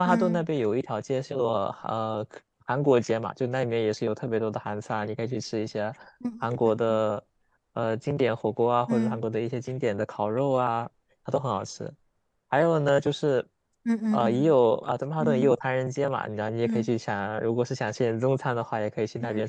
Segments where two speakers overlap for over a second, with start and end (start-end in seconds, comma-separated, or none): none